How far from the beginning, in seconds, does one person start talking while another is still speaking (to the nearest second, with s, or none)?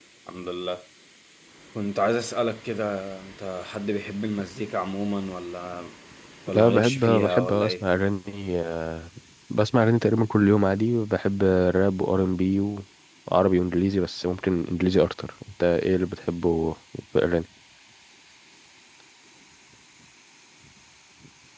7 s